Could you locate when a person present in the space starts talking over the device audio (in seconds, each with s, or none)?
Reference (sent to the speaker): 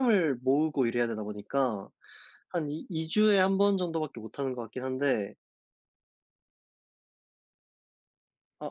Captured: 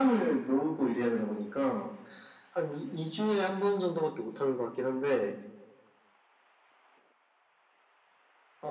none